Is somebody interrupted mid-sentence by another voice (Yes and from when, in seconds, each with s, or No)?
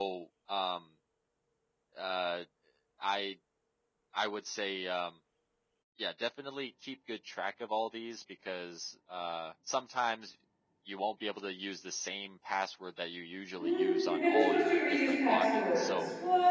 Yes, from 13.6 s